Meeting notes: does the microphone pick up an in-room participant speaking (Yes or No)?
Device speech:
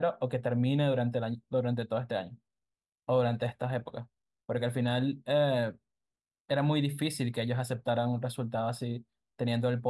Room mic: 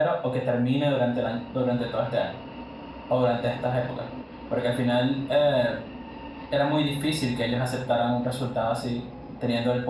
No